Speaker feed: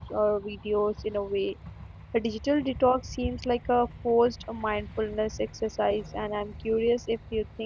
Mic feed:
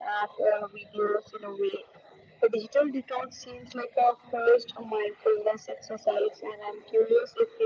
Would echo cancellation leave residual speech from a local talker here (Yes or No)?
No